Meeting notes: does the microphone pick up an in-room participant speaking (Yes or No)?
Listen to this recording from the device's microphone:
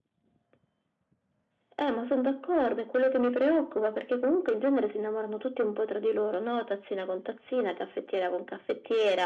No